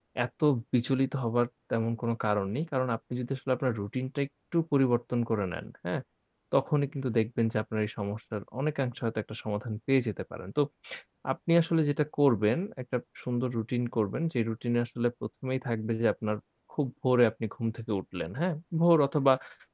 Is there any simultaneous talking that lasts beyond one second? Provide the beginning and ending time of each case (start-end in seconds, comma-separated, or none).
none